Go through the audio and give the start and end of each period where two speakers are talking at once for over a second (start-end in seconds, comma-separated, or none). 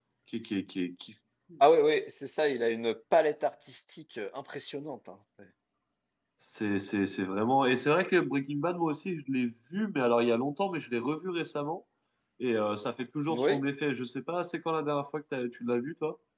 none